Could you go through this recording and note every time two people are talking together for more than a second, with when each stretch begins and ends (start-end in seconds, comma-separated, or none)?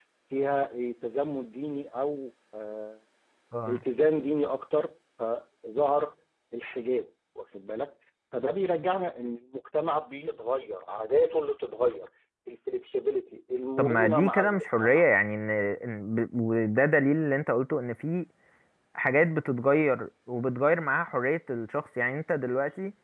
13.8-15.0